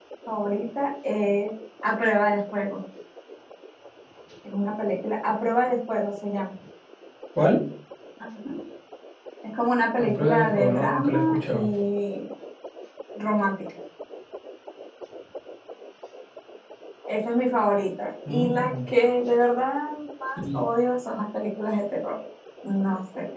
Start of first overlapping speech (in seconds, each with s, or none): 10.0 s